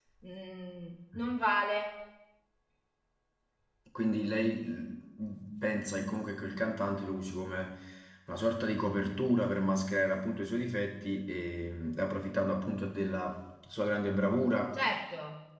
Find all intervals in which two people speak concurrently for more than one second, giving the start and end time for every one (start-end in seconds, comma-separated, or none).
none